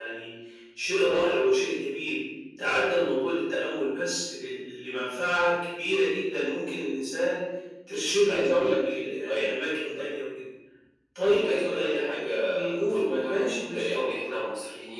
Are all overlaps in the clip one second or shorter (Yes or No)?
No